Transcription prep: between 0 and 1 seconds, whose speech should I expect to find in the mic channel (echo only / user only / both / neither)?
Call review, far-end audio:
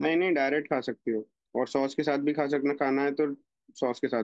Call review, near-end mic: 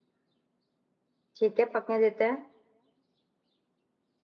neither